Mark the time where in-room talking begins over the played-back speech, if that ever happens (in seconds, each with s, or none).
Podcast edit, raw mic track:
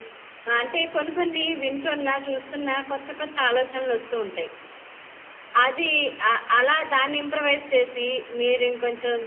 none